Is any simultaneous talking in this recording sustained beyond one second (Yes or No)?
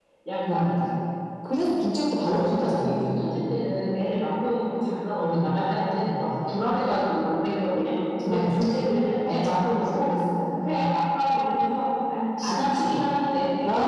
Yes